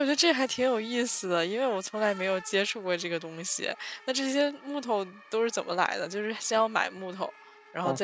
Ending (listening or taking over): taking over